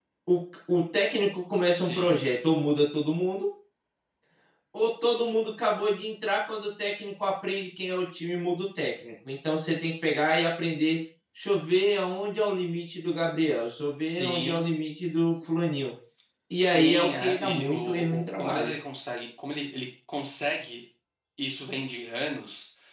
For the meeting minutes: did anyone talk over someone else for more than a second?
Yes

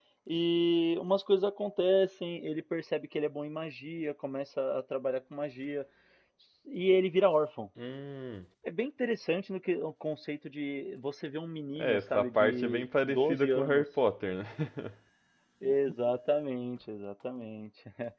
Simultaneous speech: Yes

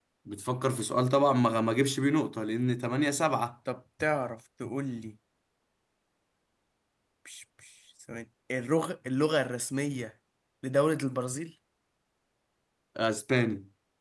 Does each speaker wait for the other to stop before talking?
Yes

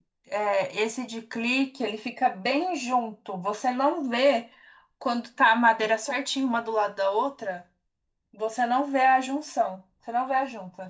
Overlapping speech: No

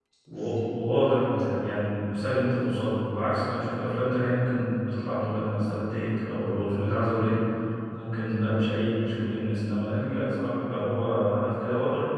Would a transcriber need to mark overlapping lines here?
No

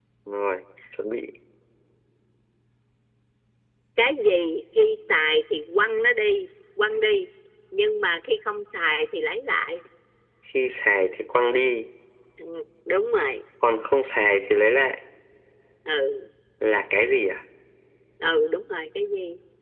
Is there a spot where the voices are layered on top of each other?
No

